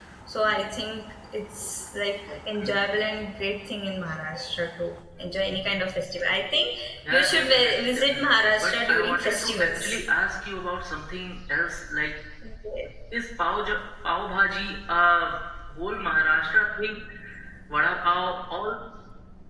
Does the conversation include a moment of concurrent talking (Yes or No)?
Yes